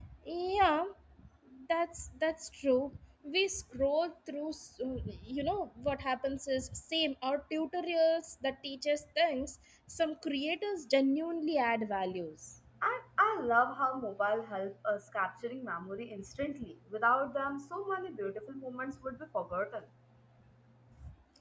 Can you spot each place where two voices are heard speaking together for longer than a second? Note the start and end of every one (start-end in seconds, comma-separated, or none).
none